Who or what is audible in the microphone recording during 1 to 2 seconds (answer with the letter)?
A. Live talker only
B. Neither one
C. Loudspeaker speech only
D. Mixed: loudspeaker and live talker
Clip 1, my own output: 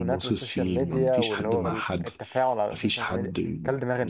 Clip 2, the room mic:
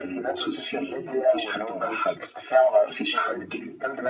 C